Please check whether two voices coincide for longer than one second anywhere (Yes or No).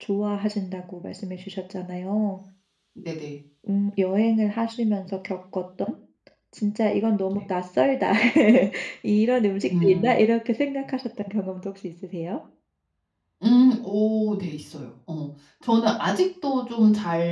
No